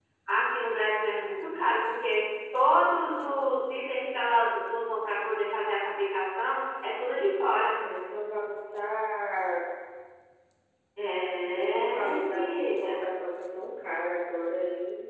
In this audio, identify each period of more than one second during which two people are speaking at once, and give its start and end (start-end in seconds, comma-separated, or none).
11.6-12.9